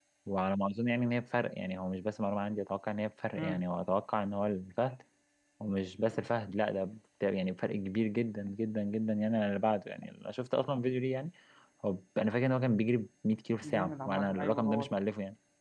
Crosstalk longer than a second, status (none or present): present